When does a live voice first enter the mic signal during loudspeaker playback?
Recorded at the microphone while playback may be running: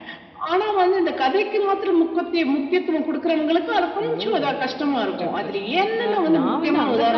4 s

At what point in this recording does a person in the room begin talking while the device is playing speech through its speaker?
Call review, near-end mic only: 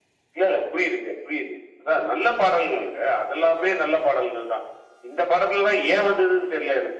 none

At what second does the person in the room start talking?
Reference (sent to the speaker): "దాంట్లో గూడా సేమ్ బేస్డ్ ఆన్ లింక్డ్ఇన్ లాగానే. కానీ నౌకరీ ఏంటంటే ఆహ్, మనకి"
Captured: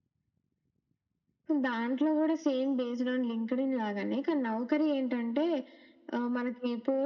none

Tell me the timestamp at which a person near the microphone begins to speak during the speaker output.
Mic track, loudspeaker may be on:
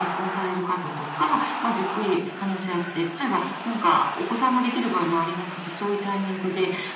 none

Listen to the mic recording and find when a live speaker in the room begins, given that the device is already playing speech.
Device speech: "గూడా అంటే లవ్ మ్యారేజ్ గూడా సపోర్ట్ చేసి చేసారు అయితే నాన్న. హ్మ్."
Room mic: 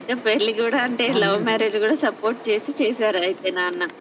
1 s

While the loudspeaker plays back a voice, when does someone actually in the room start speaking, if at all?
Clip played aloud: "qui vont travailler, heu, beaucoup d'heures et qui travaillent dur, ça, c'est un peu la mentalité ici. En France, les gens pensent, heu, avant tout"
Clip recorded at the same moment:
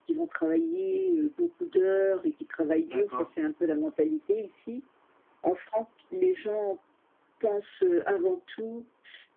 3 s

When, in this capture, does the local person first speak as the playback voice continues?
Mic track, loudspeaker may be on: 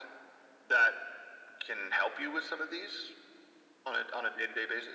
none

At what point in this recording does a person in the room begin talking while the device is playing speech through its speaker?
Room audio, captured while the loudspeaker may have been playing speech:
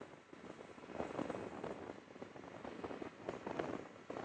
none

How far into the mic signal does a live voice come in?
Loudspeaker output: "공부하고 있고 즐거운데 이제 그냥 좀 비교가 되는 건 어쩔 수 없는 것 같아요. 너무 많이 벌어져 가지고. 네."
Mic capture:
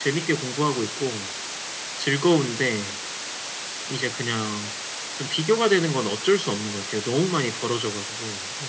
none

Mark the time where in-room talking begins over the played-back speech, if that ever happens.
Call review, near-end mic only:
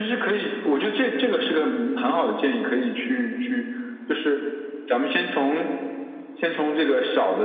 none

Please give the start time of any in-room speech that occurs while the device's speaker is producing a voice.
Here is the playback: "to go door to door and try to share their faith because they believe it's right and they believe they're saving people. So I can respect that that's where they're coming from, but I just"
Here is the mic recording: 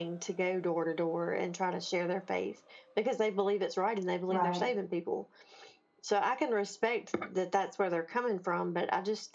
4 s

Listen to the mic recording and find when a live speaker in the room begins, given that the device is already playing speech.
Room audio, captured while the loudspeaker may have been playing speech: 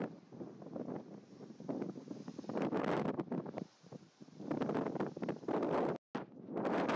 none

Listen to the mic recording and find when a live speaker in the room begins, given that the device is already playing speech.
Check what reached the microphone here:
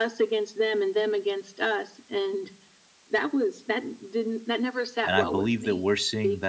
5 s

